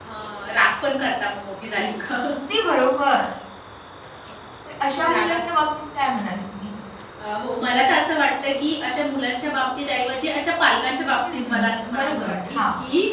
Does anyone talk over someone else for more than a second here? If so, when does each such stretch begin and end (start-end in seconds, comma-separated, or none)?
11.3-12.6